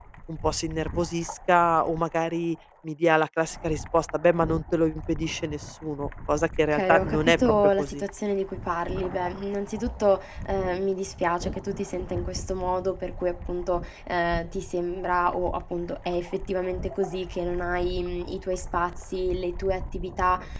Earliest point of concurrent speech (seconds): 6.7 s

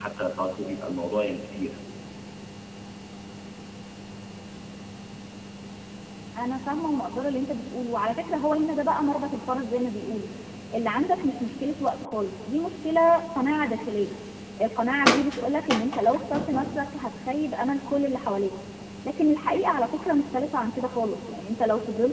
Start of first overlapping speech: none

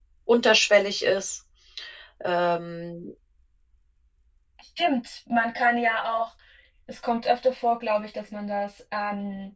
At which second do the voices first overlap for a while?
none

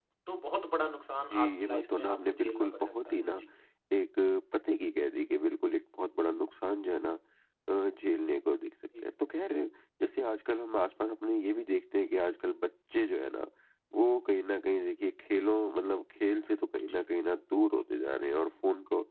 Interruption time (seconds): 1.3 s

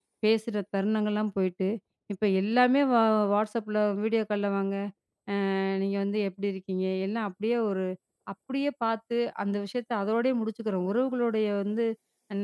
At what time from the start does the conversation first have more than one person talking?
none

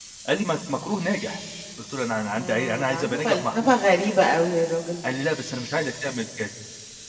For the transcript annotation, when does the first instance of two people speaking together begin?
2.3 s

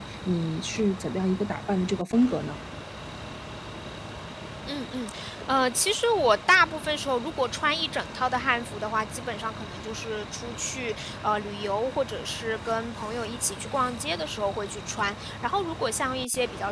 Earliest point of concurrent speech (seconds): none

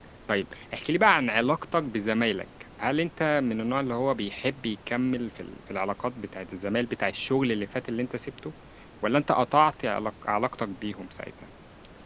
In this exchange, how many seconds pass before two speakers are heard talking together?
none

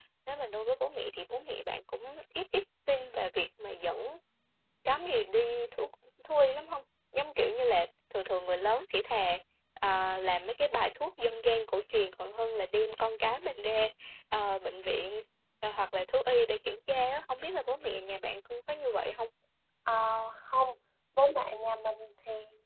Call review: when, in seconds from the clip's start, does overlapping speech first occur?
none

